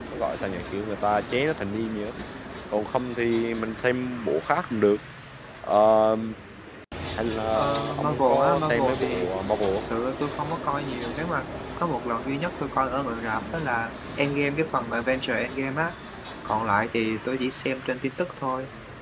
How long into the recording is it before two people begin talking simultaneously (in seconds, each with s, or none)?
7.5 s